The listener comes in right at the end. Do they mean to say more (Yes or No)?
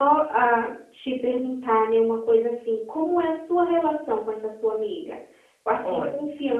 No